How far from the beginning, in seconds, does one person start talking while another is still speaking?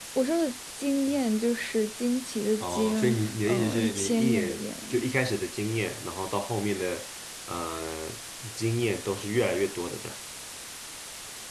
2.6 s

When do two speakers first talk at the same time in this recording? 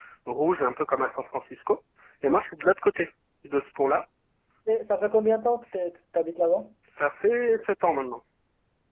none

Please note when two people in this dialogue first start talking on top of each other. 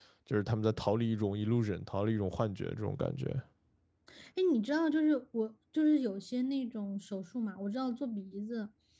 none

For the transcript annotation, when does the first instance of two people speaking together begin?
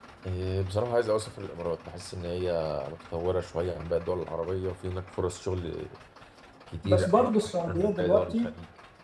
6.8 s

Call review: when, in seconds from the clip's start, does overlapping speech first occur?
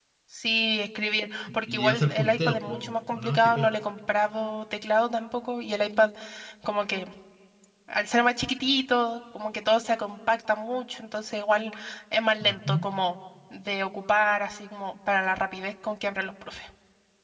1.7 s

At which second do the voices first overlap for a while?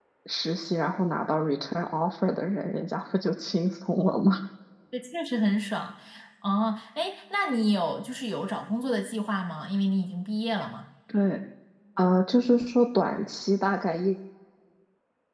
none

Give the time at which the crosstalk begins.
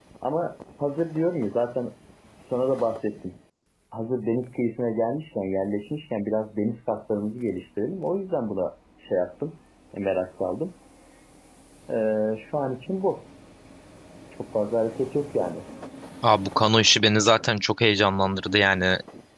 none

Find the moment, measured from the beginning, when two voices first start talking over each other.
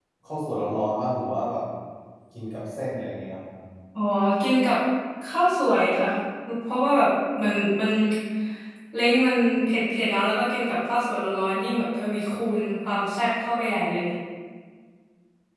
none

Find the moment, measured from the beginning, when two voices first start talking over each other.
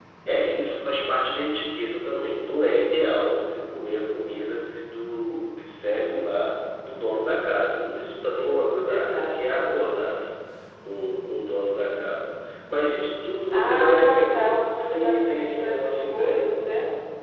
8.3 s

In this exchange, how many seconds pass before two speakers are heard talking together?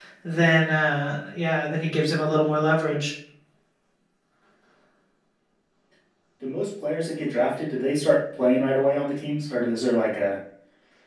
none

